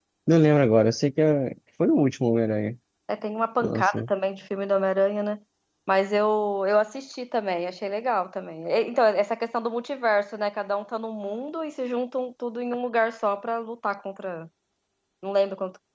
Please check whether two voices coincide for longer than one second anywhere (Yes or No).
No